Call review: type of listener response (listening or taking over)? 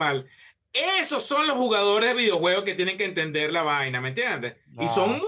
listening